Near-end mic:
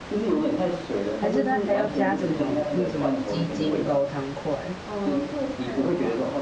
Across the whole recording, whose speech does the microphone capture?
both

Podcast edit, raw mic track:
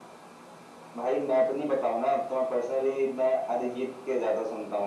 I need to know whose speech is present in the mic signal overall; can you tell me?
echo only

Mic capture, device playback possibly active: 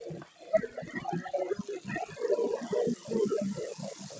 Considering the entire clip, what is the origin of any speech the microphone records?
echo only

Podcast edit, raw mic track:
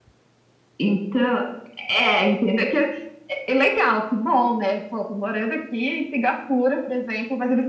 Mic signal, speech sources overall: echo only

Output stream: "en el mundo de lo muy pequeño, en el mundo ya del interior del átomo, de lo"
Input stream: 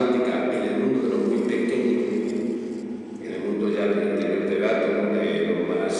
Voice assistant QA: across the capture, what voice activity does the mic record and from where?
echo only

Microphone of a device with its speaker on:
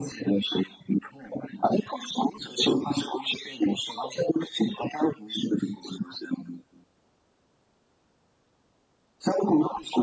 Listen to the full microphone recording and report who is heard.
echo only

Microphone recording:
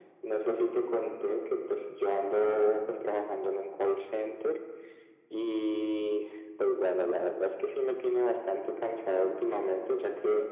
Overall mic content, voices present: echo only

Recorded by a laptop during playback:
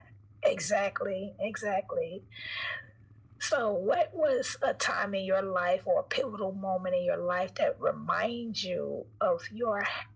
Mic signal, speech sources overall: echo only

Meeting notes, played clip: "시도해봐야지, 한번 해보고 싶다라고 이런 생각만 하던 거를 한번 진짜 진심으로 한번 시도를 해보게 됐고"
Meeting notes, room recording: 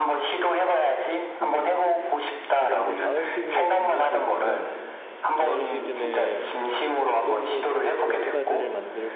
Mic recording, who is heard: both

